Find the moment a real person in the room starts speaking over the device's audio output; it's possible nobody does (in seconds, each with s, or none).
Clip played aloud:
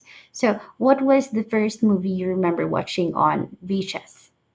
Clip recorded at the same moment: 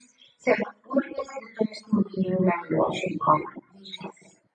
none